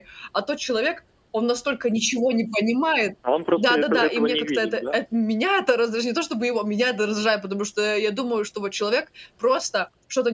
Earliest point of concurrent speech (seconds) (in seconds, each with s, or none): 3.6 s